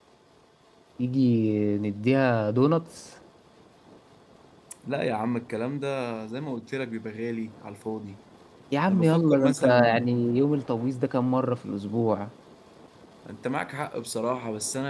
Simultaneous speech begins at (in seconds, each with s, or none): 8.9 s